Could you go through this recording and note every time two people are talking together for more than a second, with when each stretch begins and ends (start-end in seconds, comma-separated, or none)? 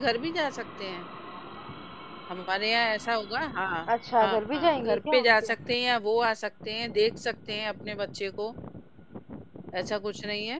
4.2-5.5